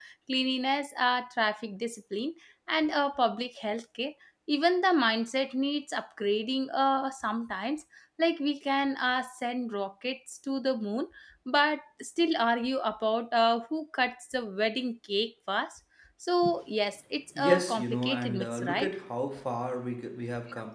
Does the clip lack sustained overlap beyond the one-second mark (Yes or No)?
No